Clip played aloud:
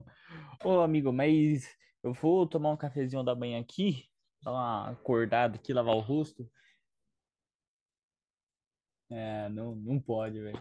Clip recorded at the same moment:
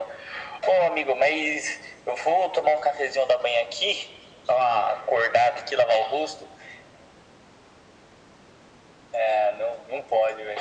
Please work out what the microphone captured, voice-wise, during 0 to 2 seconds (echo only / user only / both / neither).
echo only